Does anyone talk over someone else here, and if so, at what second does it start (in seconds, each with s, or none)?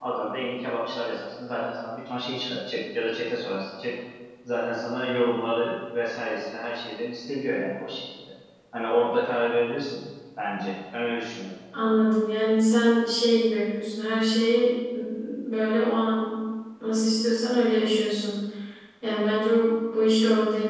none